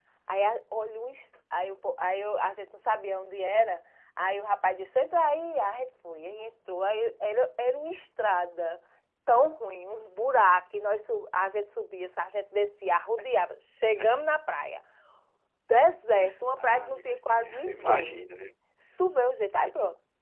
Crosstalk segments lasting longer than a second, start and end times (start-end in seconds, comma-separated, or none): 16.6-18.2